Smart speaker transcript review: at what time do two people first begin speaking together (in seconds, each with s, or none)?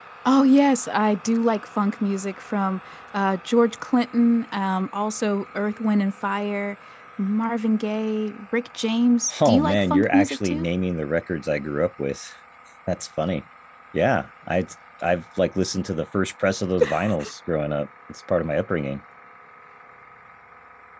9.4 s